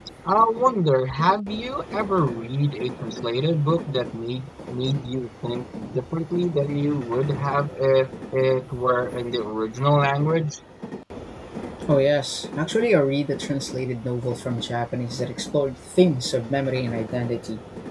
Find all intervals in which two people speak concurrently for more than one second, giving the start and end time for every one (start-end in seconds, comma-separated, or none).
none